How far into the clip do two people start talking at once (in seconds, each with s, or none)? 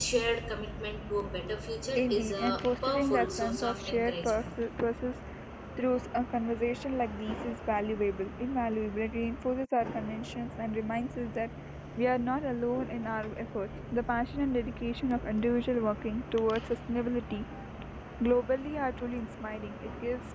1.9 s